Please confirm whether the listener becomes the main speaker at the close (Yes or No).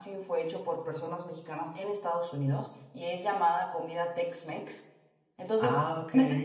No